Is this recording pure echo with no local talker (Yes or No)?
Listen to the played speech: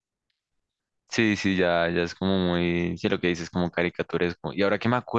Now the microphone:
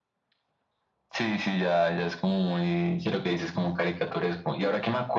Yes